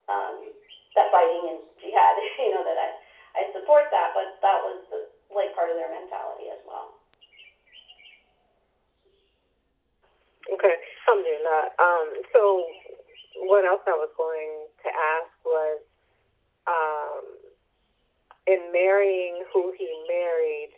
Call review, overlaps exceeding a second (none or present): none